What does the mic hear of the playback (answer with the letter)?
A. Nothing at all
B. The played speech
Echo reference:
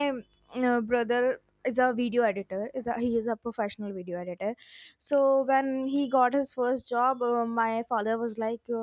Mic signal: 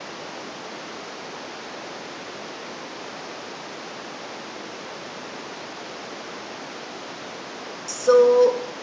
A